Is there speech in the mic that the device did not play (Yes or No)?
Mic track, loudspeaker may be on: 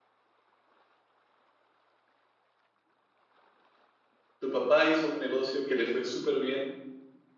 Yes